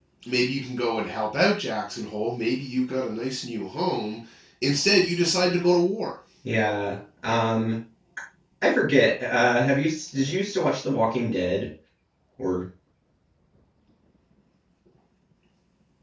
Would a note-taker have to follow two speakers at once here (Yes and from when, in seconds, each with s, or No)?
No